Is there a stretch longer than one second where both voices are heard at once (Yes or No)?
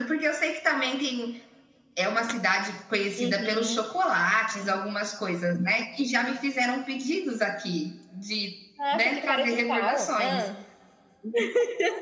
Yes